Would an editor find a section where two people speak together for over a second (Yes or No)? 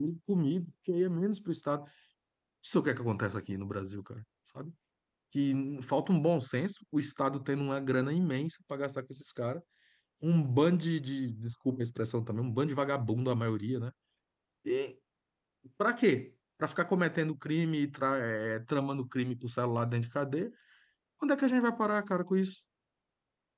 No